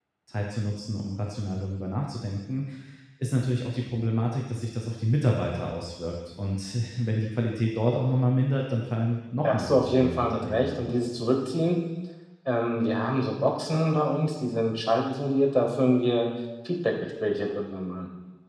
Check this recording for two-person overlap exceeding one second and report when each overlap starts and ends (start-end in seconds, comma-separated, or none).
9.4-10.8